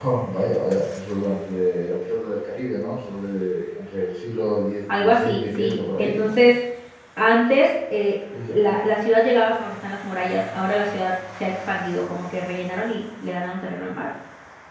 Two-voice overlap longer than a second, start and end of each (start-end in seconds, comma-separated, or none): 5.0-6.4